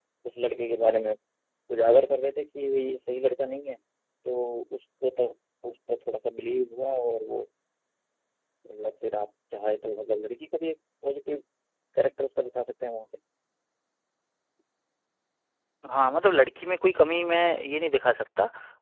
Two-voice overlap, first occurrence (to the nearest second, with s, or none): none